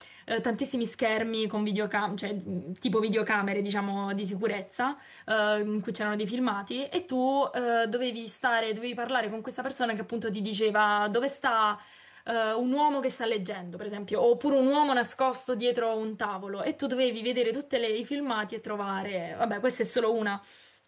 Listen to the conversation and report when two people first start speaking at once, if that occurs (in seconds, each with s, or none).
none